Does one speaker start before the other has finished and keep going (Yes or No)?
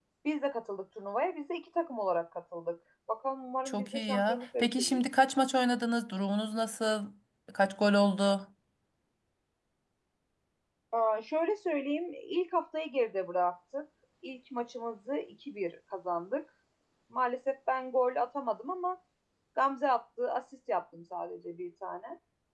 Yes